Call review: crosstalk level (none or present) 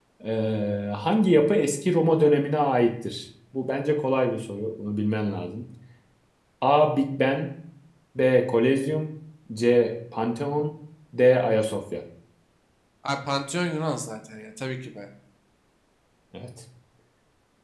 none